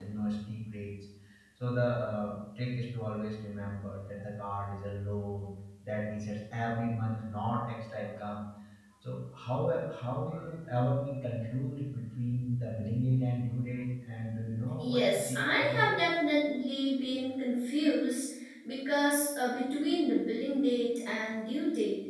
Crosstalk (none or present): present